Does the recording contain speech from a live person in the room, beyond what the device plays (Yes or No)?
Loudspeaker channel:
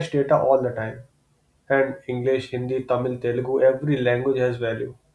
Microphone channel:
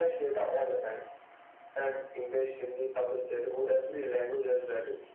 No